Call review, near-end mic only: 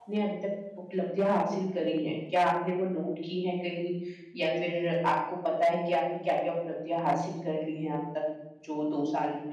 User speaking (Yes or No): Yes